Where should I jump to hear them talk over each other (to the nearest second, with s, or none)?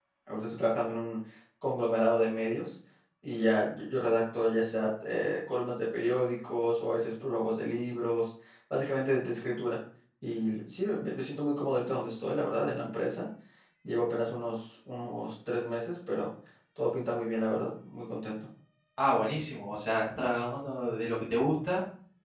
none